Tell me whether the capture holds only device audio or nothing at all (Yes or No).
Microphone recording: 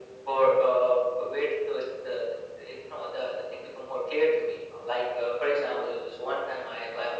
Yes